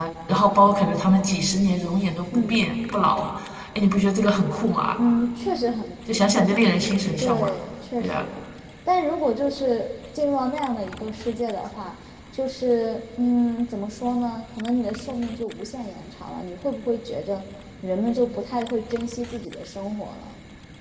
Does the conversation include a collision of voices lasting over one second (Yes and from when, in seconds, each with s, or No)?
No